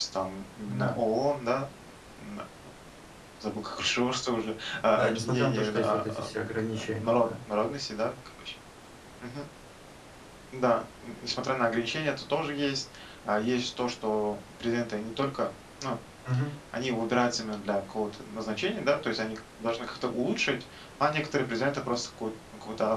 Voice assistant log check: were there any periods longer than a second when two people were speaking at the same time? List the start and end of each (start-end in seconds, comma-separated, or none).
4.9-7.3